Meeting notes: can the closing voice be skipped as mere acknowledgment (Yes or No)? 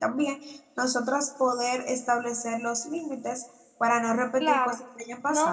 No